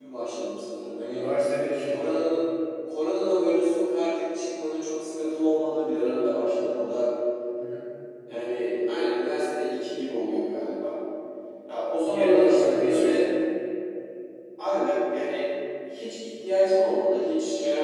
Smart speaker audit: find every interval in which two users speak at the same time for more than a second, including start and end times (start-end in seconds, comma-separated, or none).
12.1-13.3